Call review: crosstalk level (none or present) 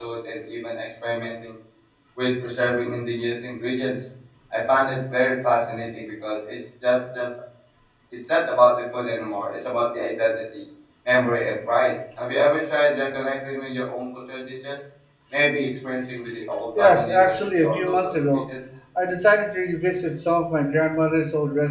present